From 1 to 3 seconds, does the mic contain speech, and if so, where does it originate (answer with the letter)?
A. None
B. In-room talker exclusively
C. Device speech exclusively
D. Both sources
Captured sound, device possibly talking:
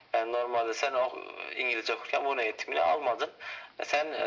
C